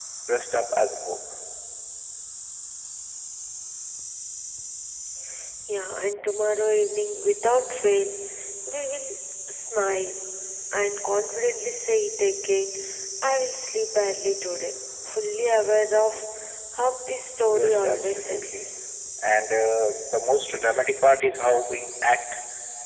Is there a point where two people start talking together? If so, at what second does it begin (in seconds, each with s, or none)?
17.4 s